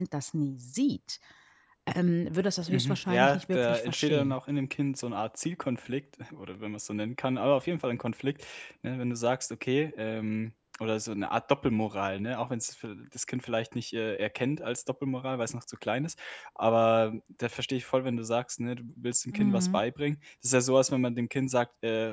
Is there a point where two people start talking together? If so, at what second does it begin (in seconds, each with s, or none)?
2.7 s